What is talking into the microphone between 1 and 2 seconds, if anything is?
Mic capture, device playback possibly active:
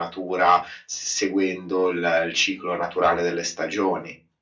echo only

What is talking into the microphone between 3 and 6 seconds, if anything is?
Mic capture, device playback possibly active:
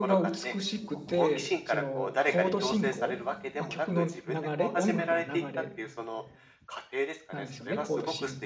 both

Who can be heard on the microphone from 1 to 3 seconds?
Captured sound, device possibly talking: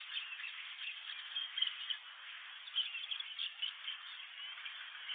neither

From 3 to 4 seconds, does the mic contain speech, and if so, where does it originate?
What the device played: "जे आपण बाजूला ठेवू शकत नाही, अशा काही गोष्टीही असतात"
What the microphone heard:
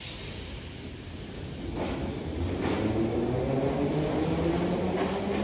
neither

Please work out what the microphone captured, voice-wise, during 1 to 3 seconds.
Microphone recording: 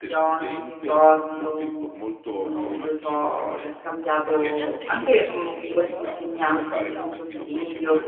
both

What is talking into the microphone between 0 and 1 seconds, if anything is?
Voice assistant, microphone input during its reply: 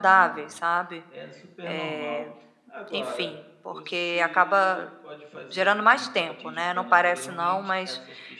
both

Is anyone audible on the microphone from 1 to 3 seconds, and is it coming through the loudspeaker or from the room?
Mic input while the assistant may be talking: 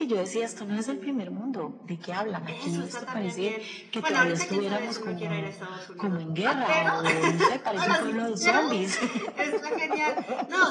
both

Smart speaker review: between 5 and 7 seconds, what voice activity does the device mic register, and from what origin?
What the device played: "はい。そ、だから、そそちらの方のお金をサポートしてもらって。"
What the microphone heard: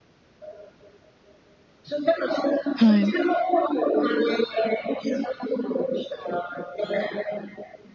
echo only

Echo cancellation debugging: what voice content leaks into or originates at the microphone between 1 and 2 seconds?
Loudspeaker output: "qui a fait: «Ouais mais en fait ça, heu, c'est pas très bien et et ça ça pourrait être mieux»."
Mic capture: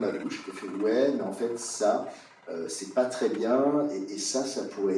echo only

